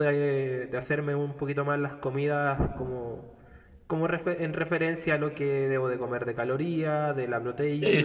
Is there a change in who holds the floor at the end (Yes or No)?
No